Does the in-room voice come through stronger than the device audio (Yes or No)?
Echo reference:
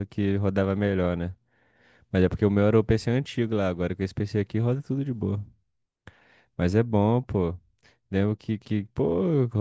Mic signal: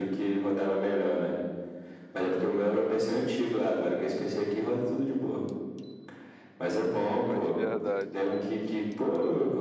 No